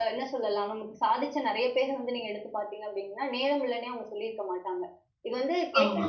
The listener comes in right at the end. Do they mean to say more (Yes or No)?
No